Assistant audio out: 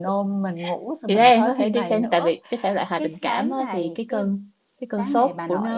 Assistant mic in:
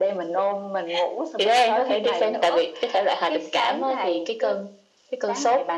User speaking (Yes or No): No